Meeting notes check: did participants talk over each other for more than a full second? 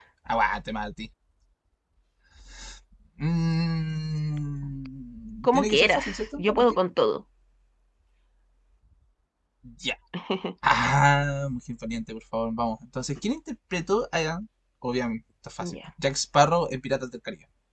Yes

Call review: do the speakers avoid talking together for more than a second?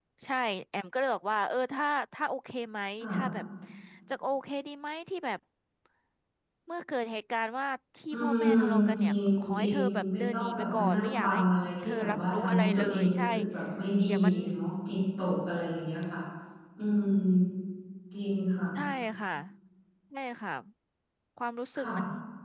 No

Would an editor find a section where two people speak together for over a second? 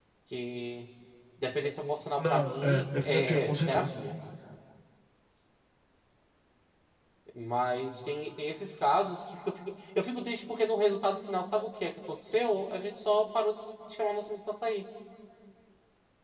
Yes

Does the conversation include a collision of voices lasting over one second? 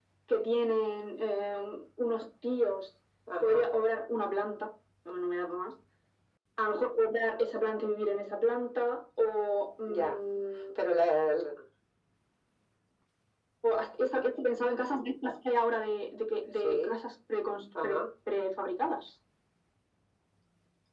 No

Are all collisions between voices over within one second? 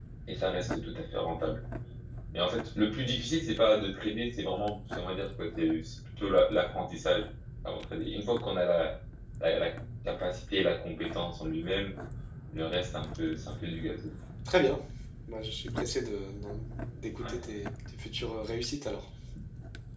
Yes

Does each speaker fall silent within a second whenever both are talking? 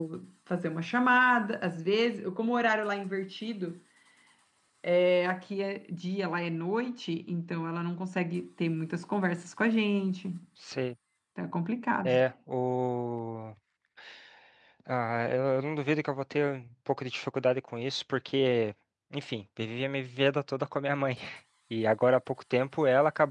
Yes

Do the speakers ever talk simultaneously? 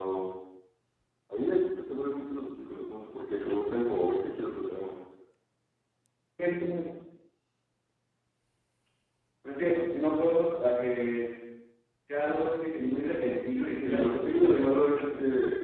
Yes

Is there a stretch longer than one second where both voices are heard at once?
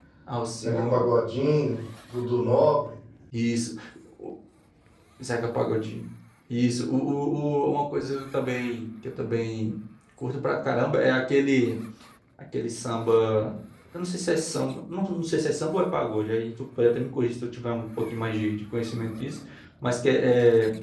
No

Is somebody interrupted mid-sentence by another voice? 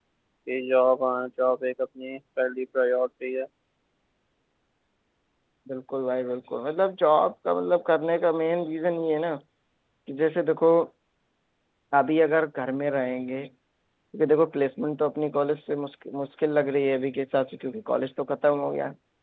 No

